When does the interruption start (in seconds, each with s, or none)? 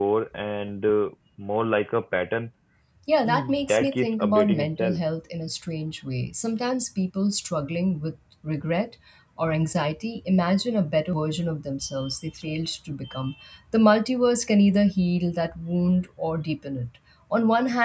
3.2 s